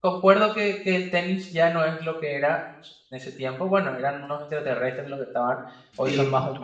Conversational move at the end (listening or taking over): listening